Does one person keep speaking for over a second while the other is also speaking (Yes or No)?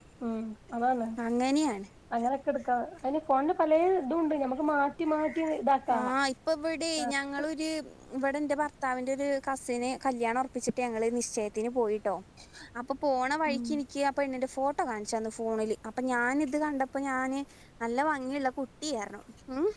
No